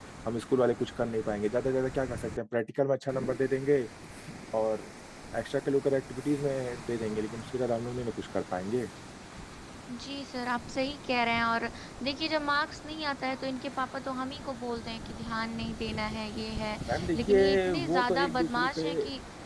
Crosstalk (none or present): present